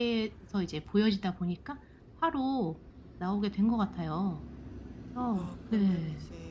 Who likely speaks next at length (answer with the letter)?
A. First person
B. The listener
B